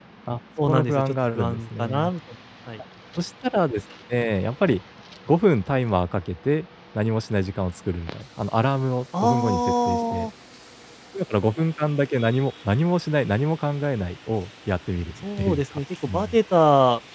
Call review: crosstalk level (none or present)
present